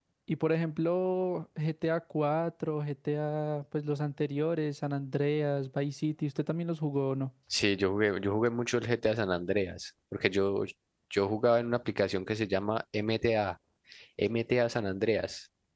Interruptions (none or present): none